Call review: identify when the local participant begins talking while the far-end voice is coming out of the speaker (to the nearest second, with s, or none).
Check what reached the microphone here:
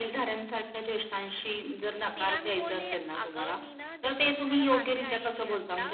2 s